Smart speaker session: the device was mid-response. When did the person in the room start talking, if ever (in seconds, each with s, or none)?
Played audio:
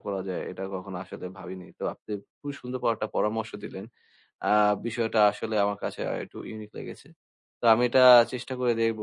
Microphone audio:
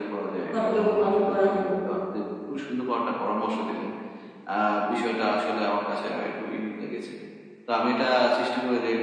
0.5 s